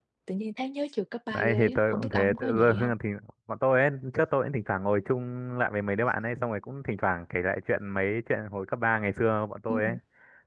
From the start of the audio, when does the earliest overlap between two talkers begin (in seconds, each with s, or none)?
1.3 s